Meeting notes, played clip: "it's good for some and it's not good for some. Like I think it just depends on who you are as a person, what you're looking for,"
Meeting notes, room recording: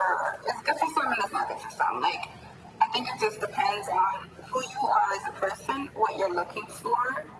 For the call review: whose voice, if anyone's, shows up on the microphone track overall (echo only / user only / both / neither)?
echo only